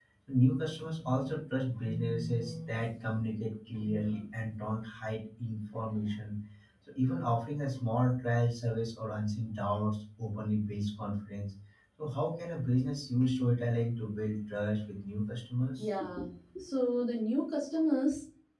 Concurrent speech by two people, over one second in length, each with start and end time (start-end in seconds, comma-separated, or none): none